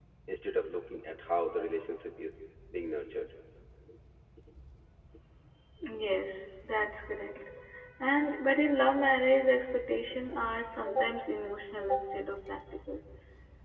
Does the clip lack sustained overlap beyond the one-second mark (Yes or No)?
Yes